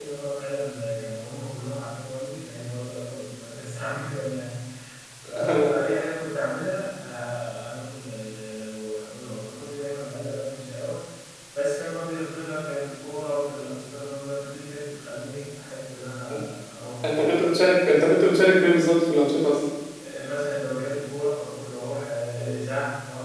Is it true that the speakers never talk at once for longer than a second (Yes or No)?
Yes